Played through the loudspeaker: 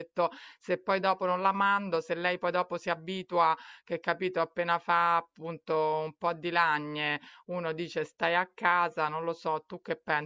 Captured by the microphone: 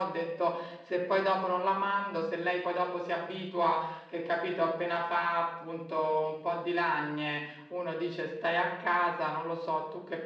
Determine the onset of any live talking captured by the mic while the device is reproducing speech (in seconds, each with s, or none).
none